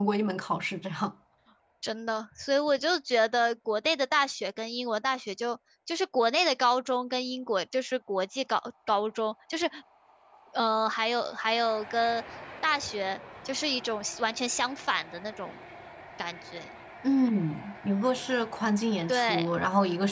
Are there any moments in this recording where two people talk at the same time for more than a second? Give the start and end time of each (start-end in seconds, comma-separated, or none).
none